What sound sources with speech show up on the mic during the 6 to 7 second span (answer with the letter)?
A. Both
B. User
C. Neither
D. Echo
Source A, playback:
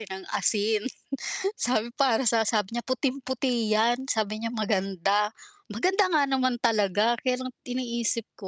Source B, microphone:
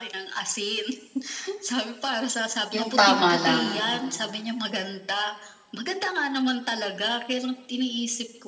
D